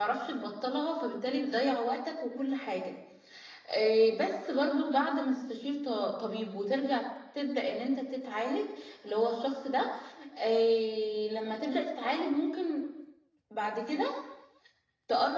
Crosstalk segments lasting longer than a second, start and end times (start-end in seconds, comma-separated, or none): none